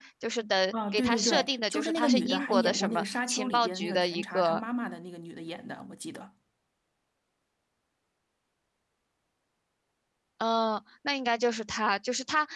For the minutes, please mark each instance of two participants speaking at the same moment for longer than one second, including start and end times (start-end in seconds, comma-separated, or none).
0.7-4.6